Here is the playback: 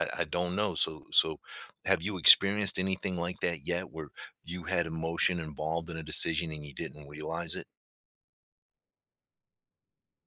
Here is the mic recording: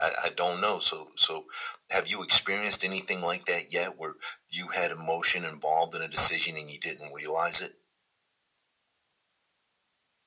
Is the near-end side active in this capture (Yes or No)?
No